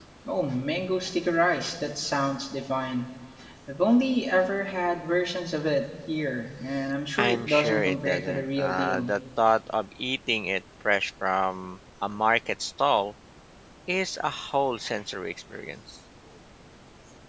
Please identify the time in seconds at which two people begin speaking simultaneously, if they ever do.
7.2 s

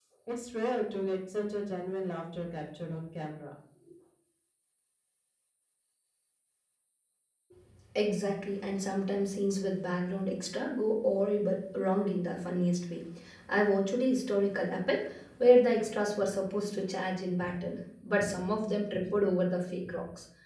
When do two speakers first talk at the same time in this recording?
none

